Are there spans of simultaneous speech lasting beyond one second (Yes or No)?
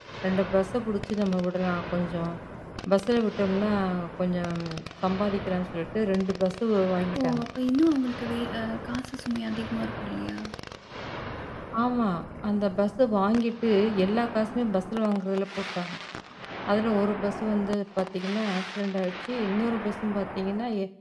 No